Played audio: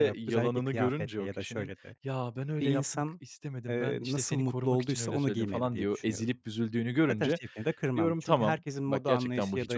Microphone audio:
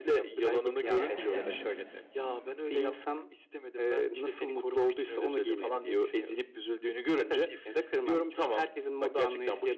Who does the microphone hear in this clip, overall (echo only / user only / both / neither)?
both